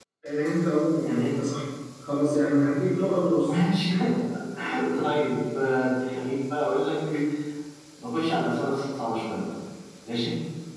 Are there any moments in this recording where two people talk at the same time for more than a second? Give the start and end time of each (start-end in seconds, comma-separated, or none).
none